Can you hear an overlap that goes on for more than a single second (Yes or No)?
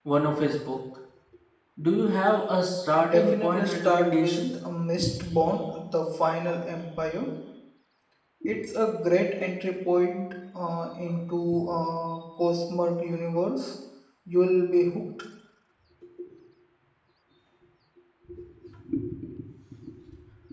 Yes